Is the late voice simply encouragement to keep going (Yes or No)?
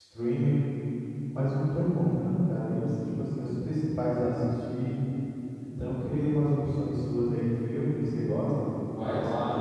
No